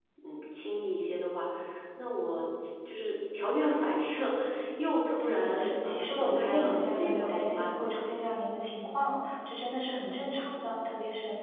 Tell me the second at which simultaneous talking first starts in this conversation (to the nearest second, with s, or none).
5 s